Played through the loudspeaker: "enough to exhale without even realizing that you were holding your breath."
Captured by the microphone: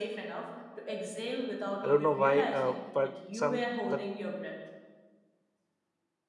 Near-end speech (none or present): present